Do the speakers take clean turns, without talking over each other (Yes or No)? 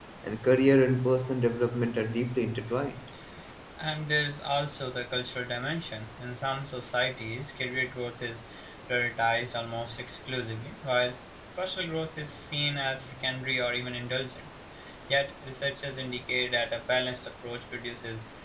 Yes